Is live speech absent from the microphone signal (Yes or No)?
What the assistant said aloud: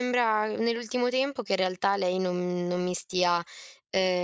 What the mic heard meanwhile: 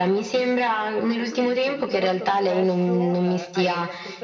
No